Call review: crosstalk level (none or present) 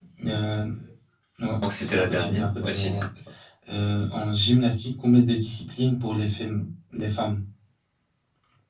present